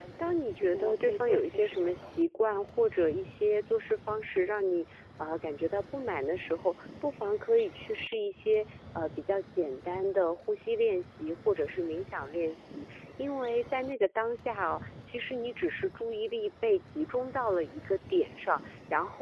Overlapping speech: Yes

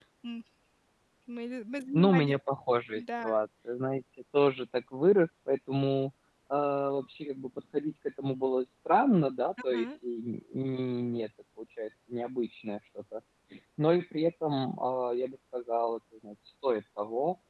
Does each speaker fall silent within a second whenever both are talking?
Yes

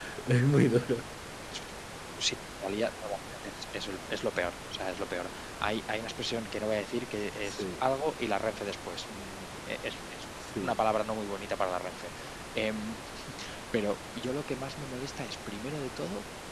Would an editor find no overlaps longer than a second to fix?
Yes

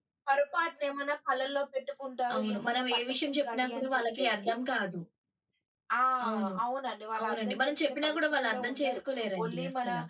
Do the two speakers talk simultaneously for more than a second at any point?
Yes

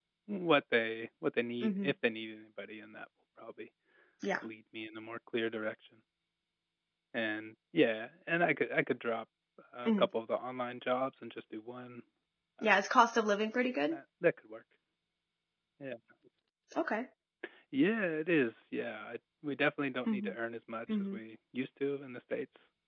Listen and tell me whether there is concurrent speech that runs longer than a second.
No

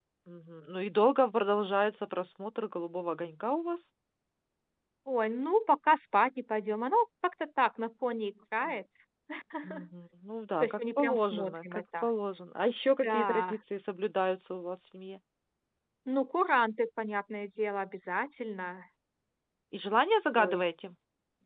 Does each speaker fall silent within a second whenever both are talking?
No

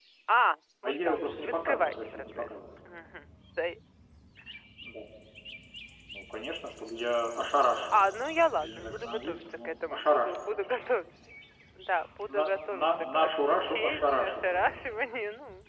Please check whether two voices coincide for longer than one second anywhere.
Yes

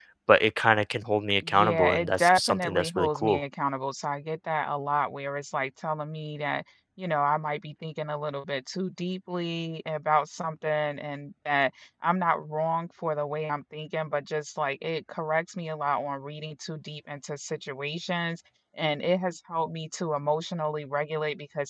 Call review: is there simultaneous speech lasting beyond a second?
Yes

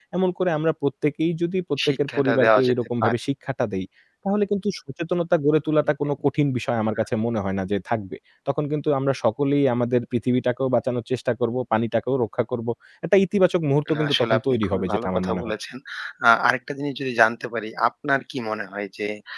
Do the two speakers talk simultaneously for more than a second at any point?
Yes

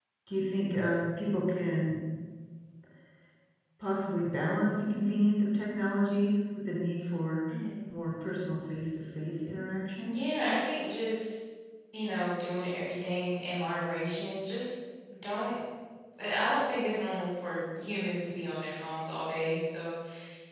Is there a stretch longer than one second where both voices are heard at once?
No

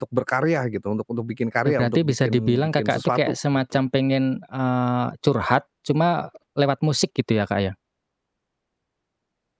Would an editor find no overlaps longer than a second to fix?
No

